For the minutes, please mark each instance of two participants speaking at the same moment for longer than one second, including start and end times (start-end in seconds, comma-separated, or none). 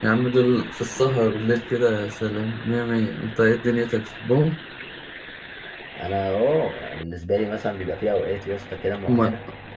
none